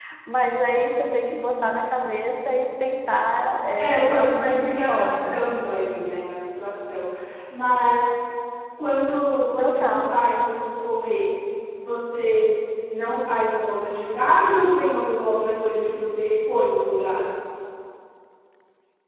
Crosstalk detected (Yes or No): Yes